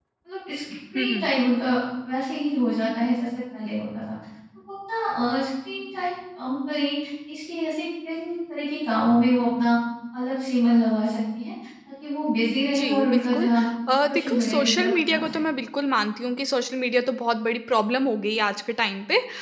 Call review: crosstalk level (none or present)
present